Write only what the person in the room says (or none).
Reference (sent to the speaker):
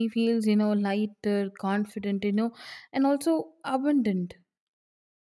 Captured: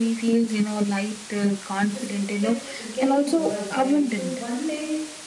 just kept getting worse, right? So, one day,